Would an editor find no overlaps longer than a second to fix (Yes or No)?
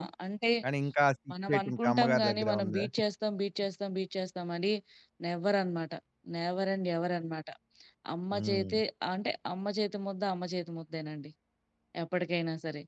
No